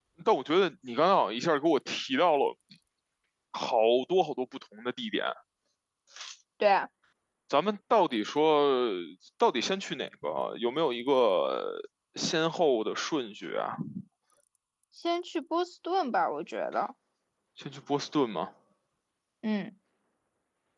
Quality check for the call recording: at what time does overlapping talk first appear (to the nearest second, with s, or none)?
none